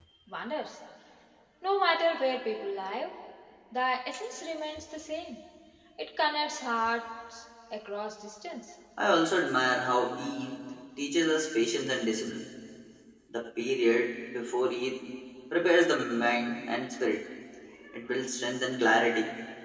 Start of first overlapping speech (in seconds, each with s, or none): none